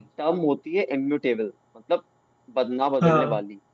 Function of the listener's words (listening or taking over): listening